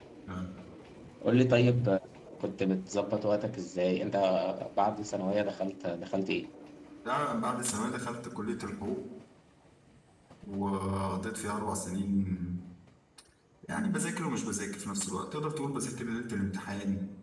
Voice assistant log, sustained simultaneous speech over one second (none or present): none